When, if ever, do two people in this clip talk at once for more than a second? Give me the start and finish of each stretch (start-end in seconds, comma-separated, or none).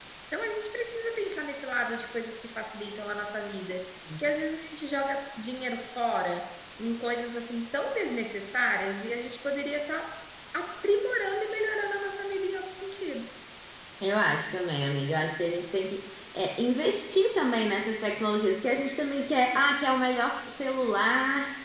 none